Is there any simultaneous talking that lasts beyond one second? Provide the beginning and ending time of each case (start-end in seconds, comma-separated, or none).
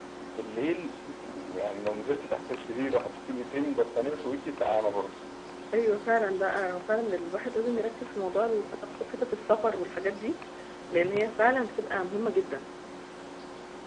none